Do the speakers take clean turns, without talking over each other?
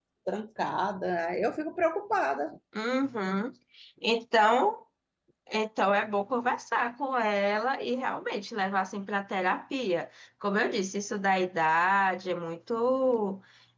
Yes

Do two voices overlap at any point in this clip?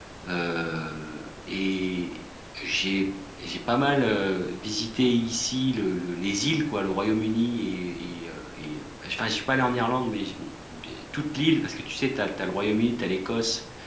No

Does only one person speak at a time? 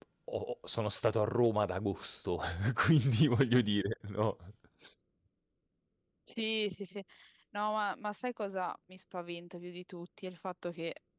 Yes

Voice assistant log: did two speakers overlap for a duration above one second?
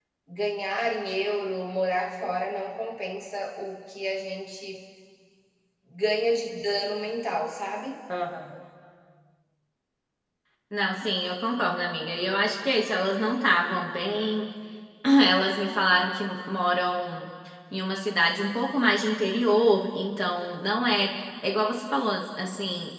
No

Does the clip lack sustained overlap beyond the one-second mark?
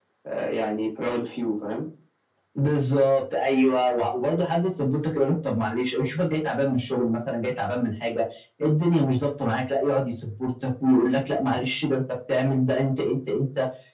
Yes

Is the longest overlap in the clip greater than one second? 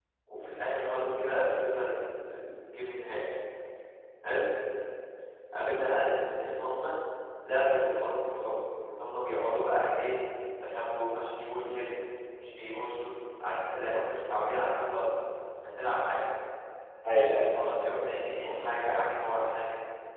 No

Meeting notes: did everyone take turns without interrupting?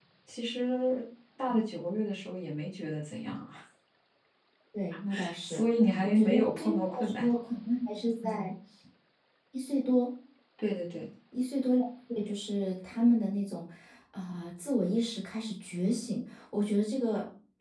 No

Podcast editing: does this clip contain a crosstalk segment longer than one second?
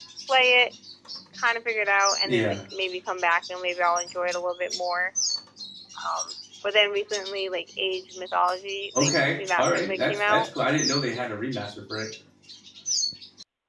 Yes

